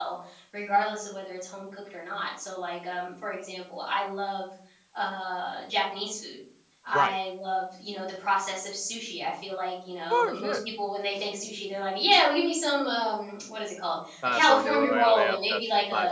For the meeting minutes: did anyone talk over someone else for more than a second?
Yes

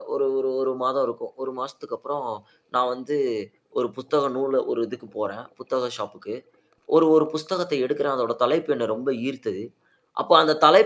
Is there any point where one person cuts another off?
No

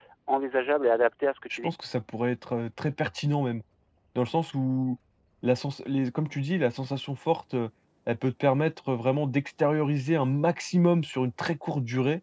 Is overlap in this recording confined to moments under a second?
Yes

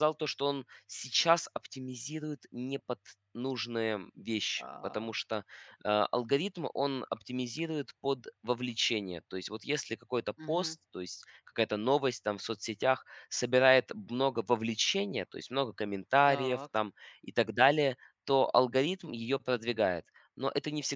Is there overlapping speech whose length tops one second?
No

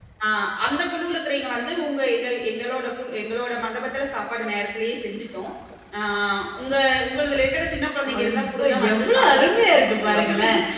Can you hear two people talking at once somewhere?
Yes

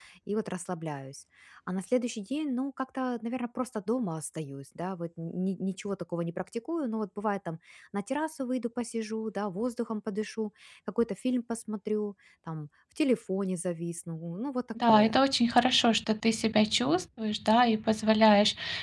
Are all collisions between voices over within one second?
Yes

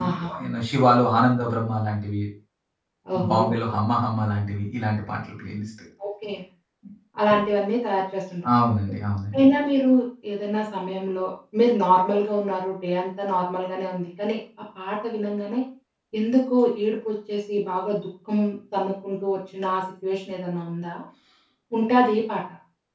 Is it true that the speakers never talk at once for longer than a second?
Yes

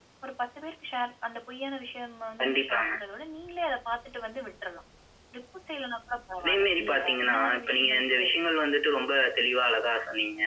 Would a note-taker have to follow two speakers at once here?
Yes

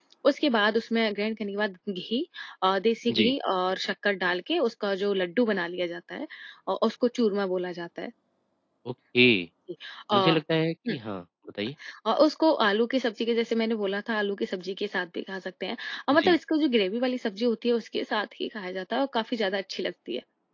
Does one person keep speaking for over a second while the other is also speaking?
No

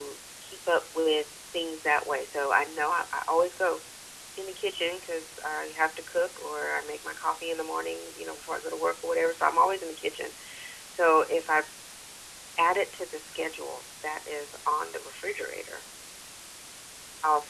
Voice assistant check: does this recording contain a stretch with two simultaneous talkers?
No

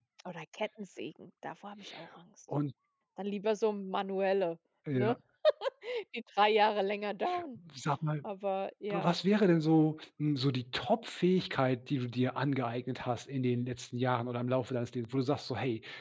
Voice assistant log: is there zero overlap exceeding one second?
Yes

